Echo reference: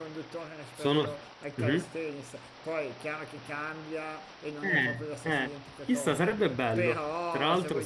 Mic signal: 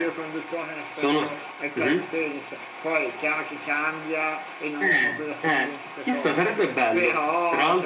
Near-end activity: none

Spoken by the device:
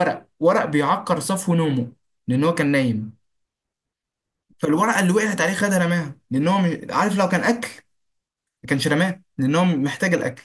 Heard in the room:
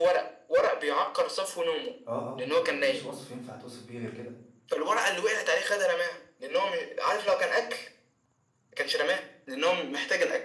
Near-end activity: present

